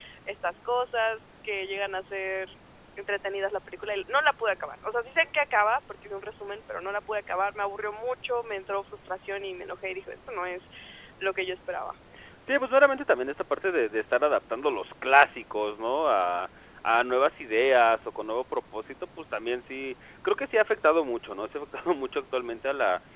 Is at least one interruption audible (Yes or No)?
No